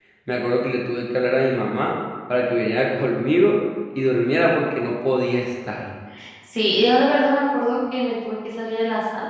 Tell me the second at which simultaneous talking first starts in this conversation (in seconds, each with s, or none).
none